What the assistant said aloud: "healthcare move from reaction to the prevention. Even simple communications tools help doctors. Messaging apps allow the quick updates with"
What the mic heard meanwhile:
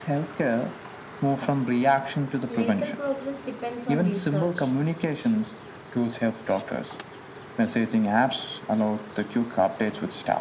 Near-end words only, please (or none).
Medical progress depends on research.